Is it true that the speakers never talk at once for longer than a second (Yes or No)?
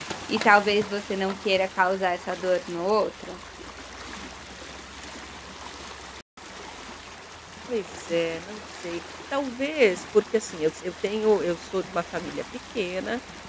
Yes